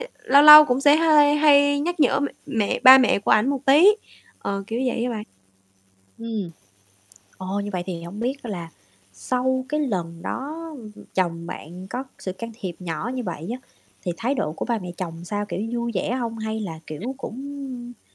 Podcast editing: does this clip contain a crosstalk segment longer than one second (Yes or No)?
No